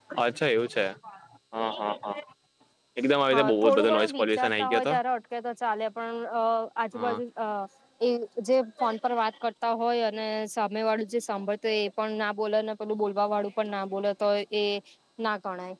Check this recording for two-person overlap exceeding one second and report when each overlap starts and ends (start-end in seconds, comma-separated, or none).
3.3-4.9